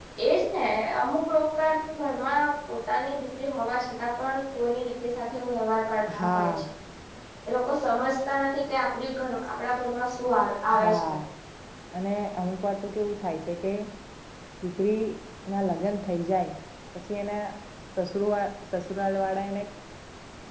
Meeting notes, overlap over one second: none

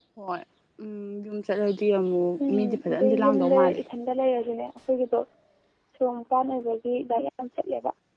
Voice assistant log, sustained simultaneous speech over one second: present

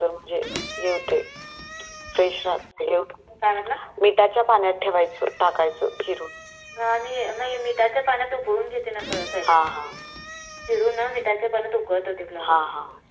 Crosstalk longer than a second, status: none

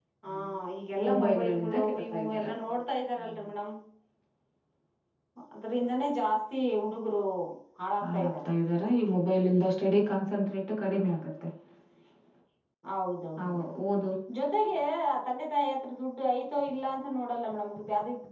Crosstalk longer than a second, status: present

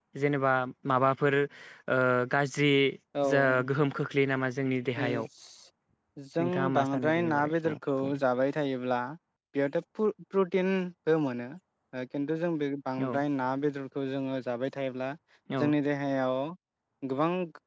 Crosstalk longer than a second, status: present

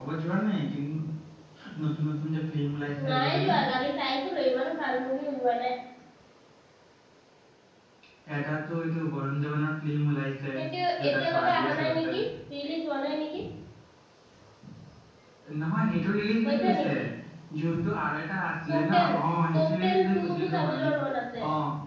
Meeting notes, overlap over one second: present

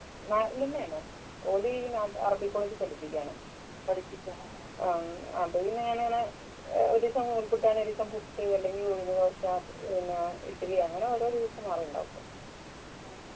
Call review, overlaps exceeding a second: none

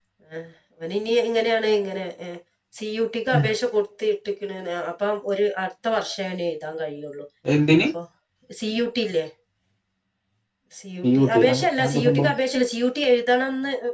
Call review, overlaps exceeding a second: present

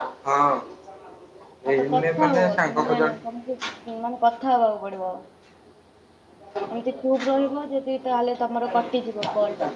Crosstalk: present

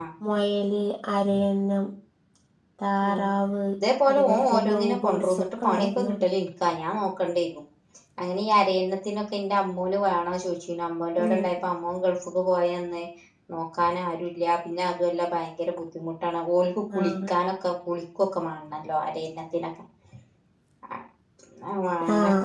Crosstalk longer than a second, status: present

